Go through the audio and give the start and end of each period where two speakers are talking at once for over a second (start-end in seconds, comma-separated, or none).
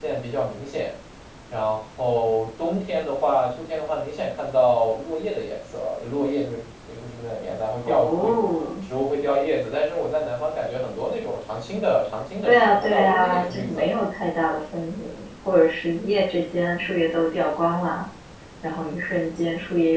12.4-14.0